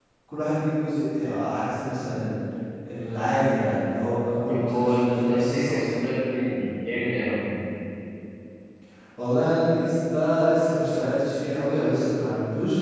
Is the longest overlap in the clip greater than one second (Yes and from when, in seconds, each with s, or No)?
Yes, from 4.5 s